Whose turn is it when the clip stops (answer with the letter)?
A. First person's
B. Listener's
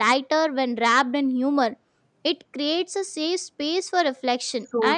A